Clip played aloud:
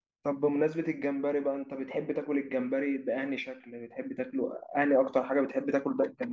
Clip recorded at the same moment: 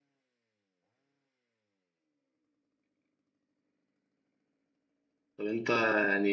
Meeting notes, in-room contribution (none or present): present